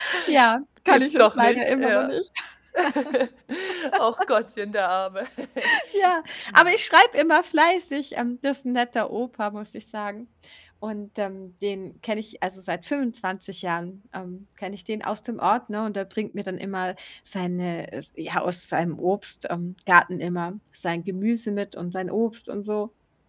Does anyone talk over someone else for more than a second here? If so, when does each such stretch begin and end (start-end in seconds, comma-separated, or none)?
0.9-2.1